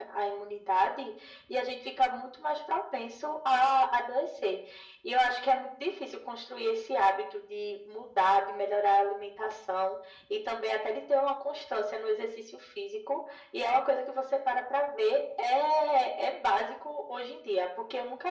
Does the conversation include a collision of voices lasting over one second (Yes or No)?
No